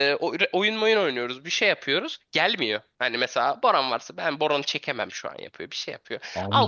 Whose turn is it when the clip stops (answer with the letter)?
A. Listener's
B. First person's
A